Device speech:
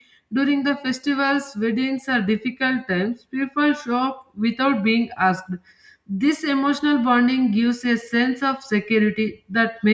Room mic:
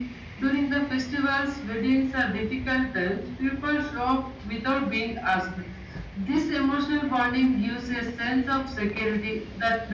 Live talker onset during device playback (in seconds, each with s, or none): none